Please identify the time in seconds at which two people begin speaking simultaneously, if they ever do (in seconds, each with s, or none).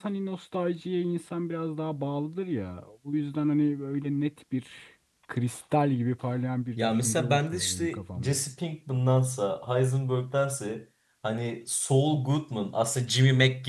6.8 s